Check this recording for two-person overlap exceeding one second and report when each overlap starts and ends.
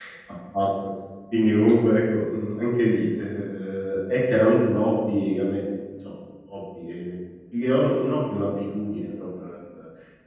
none

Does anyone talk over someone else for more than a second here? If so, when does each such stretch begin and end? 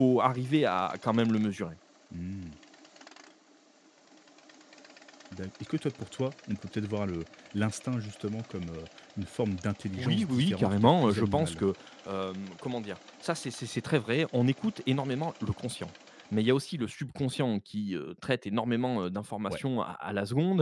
10.0-11.7

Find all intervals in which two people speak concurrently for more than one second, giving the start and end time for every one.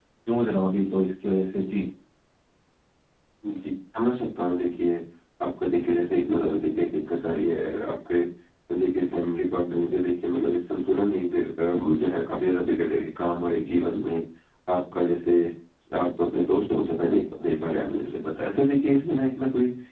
none

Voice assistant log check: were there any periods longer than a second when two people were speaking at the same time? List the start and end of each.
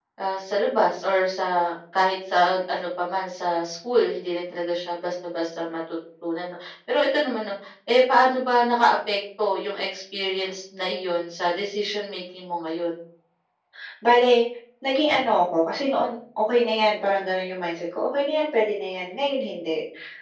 none

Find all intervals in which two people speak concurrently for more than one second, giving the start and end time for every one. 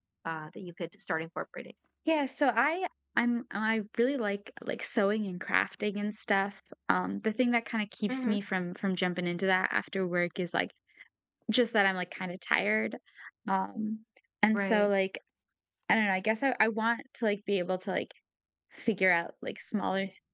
none

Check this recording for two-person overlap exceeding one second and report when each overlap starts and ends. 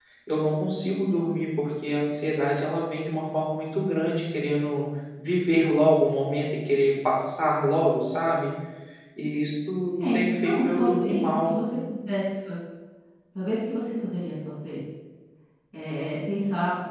10.0-11.5

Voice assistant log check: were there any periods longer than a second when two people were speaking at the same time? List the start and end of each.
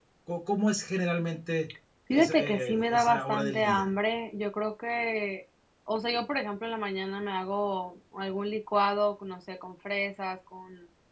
2.2-3.9

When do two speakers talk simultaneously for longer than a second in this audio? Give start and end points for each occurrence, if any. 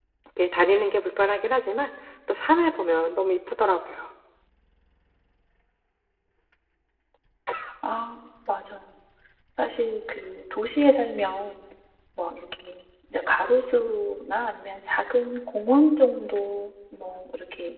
none

